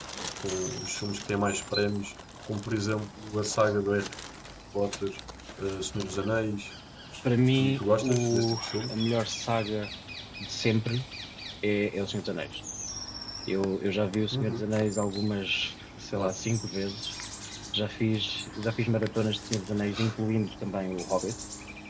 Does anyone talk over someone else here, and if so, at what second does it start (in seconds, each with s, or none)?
7.5 s